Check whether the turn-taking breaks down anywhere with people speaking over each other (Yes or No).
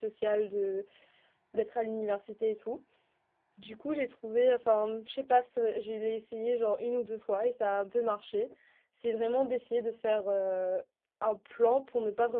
No